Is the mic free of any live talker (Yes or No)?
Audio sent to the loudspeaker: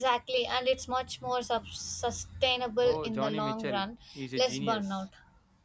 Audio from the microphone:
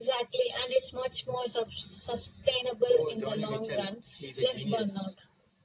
Yes